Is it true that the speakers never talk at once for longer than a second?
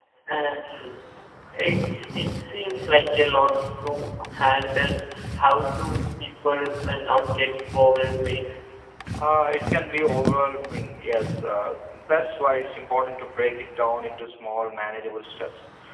Yes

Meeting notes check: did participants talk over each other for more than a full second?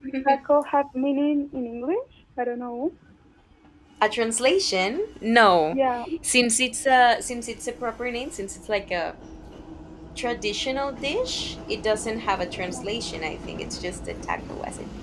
No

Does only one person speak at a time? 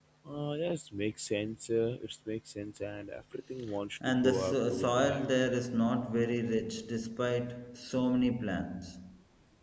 No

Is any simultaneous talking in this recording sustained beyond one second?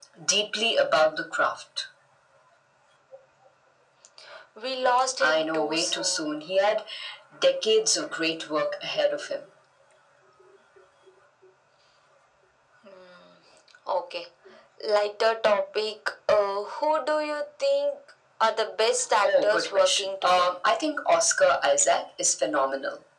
Yes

